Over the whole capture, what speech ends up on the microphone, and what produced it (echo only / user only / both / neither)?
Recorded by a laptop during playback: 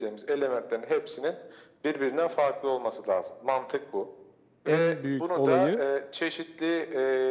both